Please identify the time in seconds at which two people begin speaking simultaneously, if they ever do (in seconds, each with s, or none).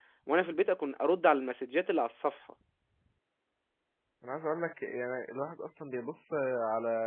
none